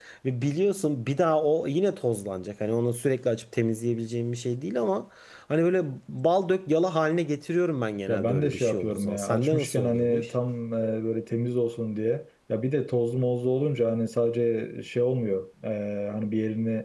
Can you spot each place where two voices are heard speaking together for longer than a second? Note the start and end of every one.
8.1-10.3

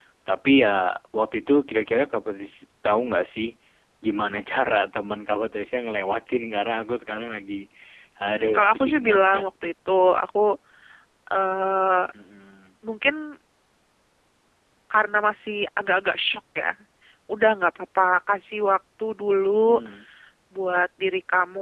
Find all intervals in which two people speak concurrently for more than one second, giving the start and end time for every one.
8.2-9.4

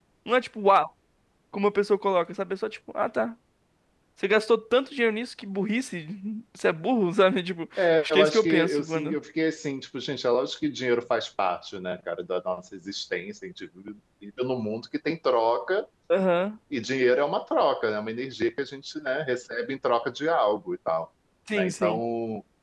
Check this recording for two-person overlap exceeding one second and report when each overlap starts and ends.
7.8-9.2

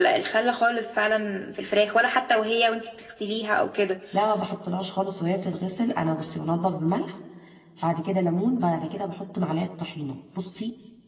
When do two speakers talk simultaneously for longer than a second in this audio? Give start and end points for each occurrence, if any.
none

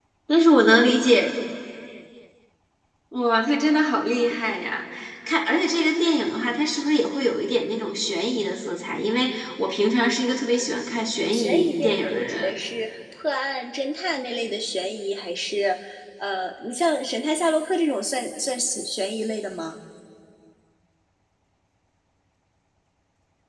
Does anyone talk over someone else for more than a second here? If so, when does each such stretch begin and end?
11.3-12.5

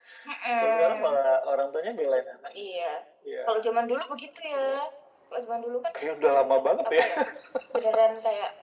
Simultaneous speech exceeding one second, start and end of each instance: none

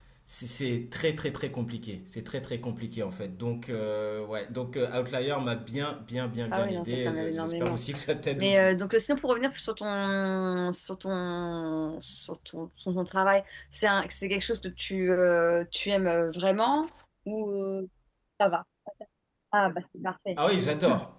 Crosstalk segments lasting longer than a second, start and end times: 6.5-7.8

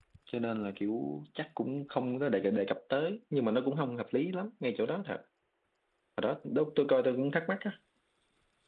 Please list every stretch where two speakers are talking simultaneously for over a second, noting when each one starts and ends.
none

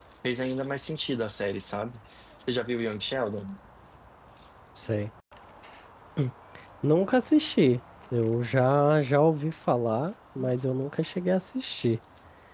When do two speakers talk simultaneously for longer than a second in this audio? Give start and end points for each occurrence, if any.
none

